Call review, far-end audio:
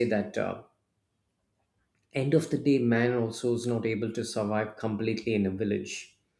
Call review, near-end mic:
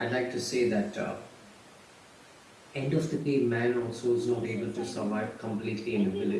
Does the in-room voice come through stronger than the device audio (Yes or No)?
No